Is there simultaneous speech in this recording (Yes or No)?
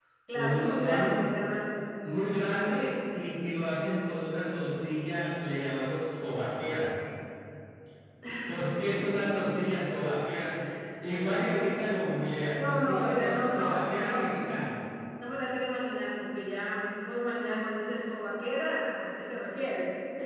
Yes